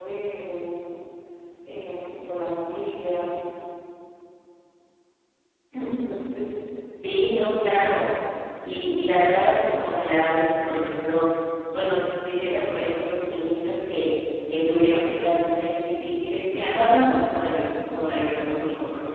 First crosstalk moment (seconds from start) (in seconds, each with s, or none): none